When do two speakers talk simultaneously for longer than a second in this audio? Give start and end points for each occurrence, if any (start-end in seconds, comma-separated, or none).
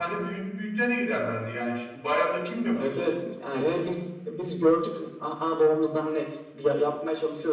none